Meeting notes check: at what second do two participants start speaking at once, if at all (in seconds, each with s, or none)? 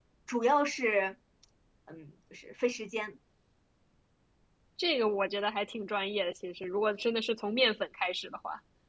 none